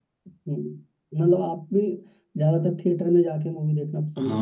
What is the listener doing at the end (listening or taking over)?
taking over